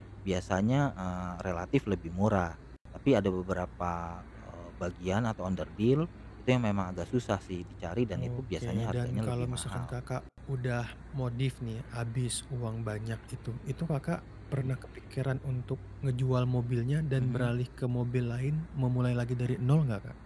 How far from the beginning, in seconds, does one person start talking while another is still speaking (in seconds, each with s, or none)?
8.4 s